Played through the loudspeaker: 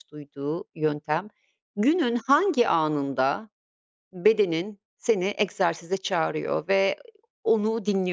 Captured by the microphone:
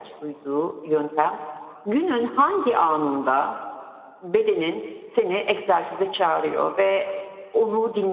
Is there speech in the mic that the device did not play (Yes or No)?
No